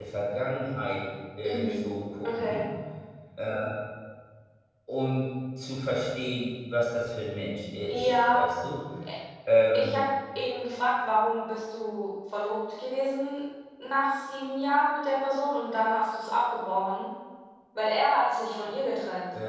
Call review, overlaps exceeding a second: none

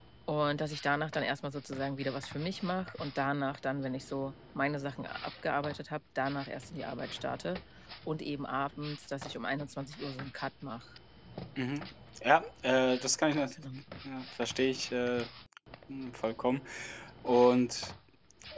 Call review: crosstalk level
none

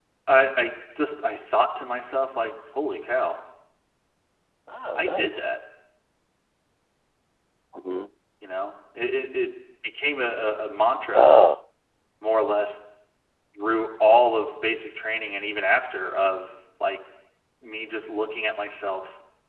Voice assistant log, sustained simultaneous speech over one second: none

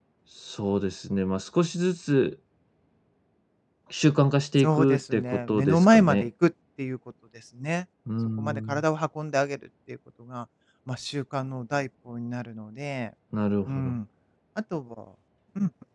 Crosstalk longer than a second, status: present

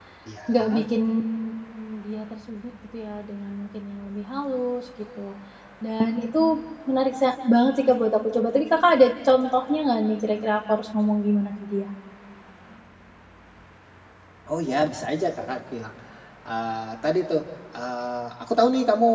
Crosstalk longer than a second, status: none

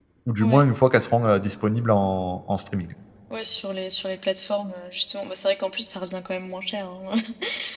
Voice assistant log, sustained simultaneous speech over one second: none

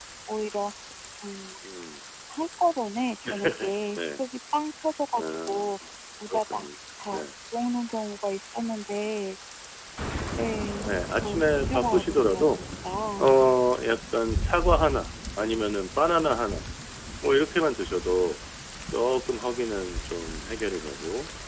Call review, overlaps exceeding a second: present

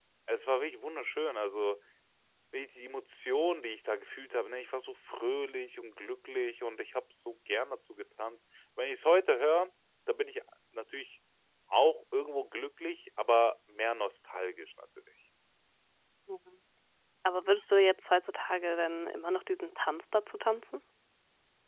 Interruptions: none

